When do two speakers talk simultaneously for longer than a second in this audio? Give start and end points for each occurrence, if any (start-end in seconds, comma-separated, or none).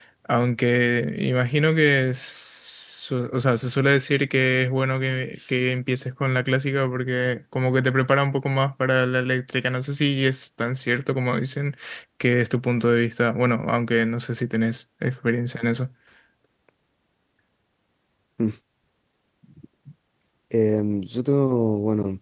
none